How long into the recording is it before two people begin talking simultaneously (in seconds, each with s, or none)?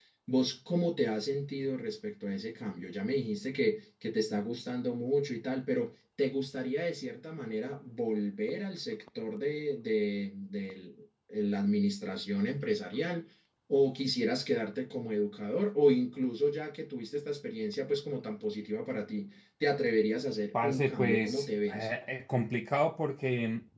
20.5 s